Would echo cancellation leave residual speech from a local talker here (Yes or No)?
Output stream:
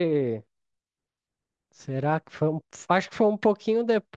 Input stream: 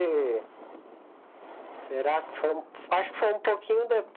No